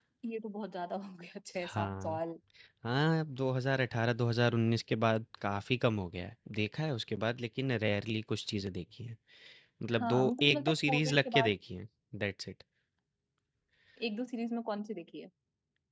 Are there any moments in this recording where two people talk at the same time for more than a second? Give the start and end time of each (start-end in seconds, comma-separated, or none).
10.0-11.5